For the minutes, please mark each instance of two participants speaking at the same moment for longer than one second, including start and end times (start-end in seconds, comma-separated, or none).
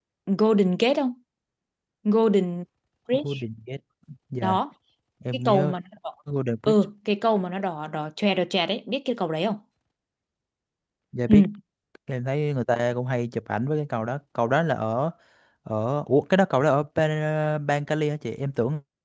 none